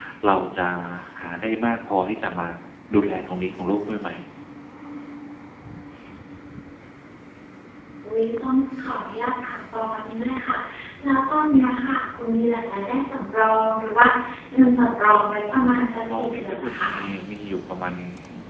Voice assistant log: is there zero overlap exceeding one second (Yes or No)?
No